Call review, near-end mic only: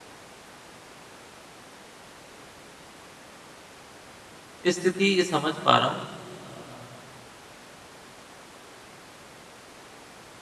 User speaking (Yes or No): Yes